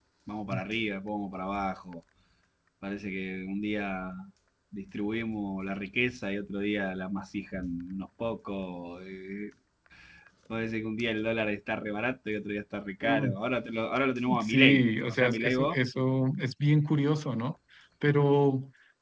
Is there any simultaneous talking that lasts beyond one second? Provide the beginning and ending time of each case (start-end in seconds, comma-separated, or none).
14.4-15.8